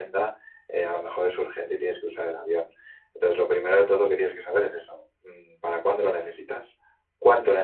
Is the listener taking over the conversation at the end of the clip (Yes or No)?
Yes